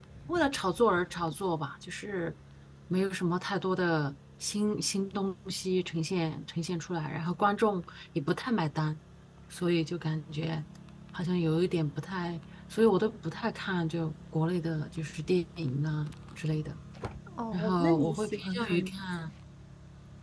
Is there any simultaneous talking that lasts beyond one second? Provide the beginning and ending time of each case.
17.5-18.9

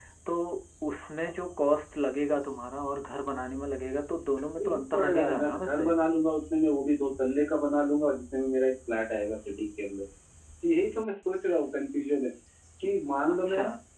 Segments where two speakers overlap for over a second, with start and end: 4.6-5.8

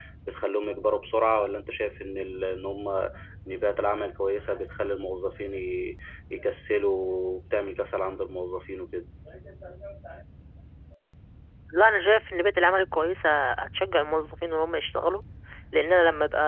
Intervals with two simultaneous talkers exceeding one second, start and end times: none

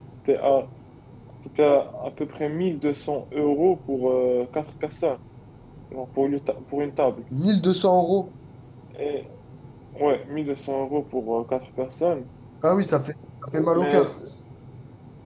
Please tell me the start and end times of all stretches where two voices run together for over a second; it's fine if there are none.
none

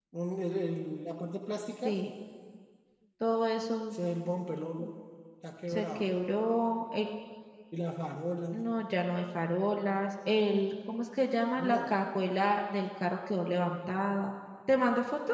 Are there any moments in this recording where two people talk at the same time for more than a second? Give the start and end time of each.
none

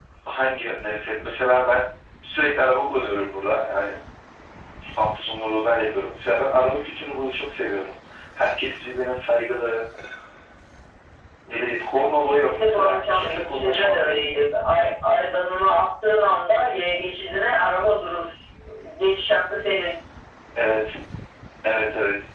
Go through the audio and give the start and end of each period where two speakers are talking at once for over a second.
12.4-14.2

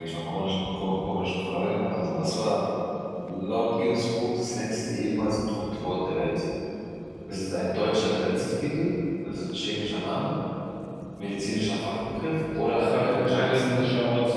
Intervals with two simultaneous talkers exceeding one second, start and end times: 12.6-13.8

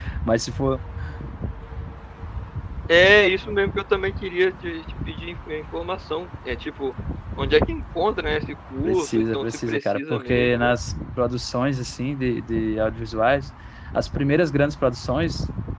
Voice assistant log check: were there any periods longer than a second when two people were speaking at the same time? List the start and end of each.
8.8-10.7

